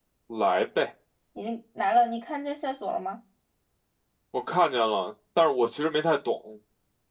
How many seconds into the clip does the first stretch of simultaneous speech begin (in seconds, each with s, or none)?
none